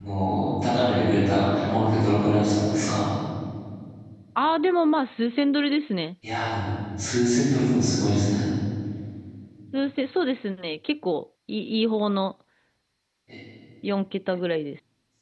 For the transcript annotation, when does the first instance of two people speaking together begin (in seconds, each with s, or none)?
none